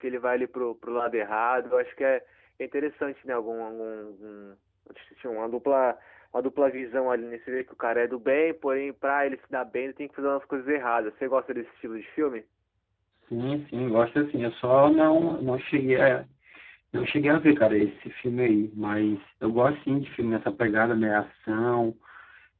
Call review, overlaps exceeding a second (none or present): none